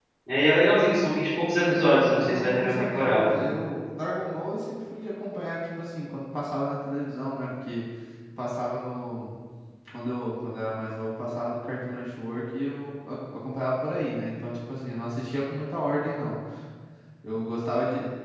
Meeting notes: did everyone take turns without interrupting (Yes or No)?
No